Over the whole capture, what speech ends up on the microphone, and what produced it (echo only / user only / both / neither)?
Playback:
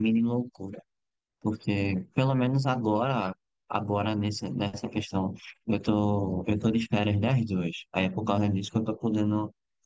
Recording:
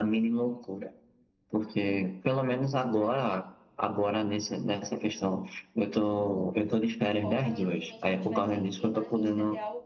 both